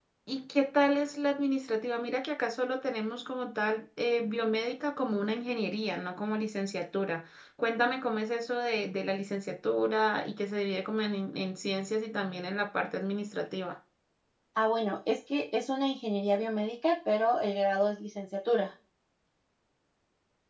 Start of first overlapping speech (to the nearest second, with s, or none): none